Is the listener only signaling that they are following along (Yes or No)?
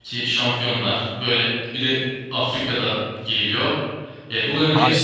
Yes